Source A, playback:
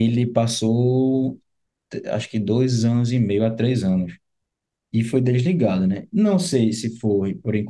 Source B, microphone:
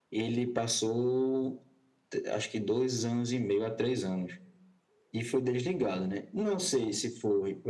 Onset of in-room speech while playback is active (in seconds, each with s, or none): none